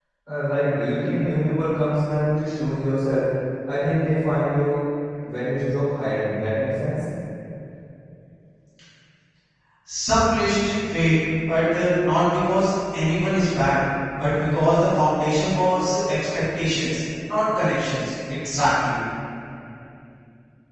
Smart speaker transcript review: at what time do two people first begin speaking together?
none

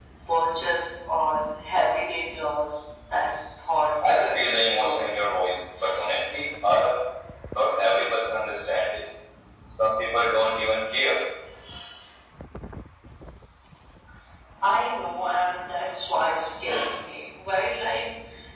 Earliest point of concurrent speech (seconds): 4 s

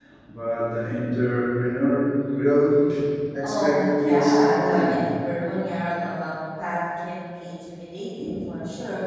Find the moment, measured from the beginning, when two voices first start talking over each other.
3 s

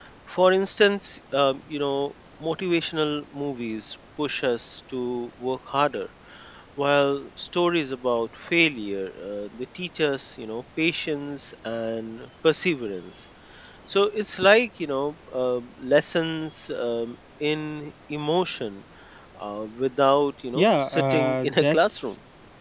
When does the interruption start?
21 s

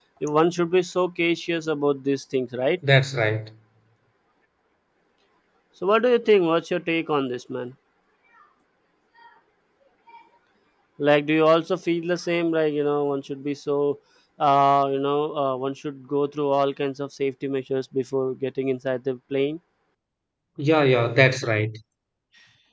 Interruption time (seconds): none

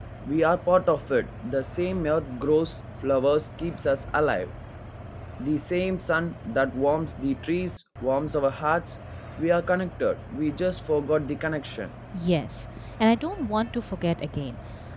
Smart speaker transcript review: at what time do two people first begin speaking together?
none

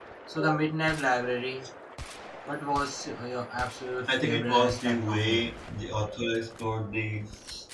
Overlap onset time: 4 s

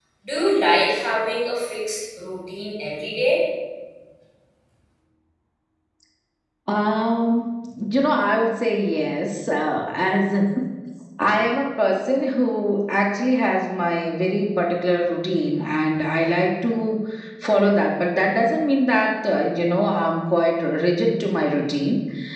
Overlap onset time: none

